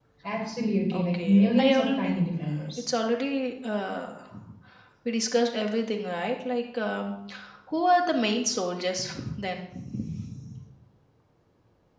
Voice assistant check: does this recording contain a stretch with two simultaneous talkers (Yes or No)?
Yes